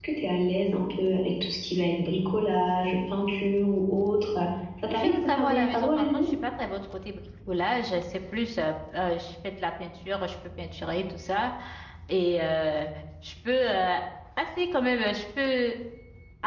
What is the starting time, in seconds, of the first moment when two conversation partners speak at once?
4.9 s

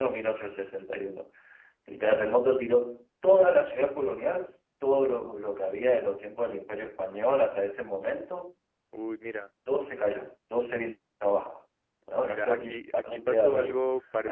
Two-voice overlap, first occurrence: 12.3 s

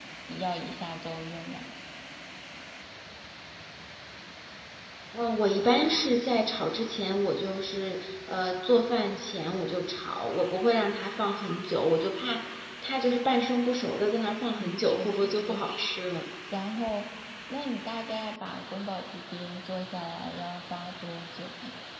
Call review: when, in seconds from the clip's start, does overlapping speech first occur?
14.6 s

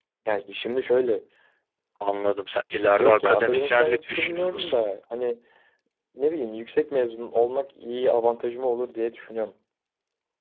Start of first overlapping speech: 3.0 s

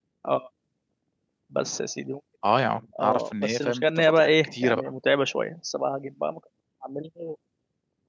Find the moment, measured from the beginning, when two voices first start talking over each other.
3.0 s

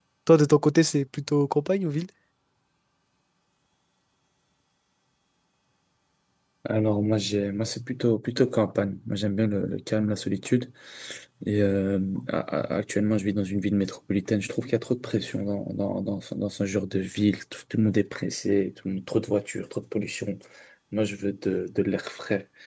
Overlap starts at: none

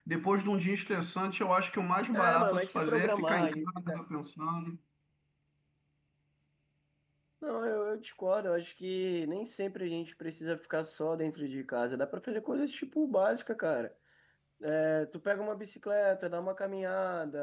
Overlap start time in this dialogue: 2.1 s

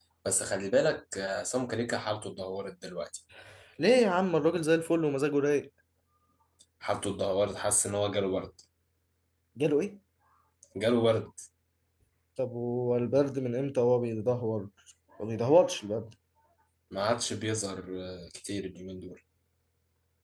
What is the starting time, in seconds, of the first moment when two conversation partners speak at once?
none

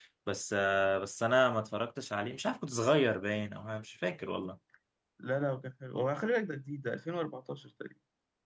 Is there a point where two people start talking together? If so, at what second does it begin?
none

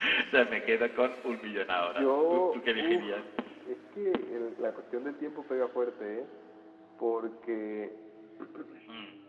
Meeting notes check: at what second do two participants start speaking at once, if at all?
1.8 s

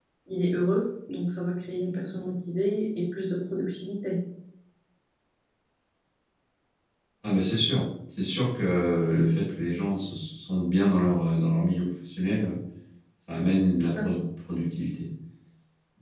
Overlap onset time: none

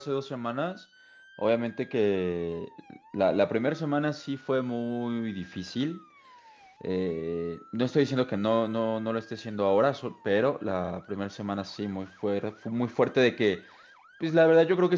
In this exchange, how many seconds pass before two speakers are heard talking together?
none

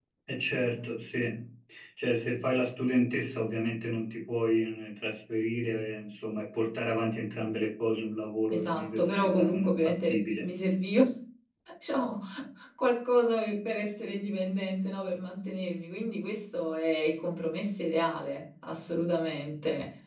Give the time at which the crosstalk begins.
8.5 s

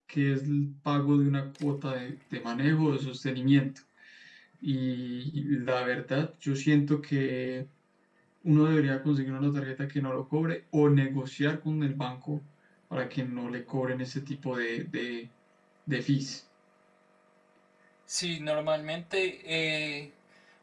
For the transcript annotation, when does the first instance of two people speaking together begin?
none

